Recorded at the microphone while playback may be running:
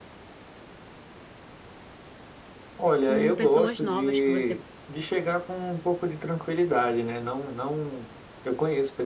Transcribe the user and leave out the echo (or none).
com pessoas novas que você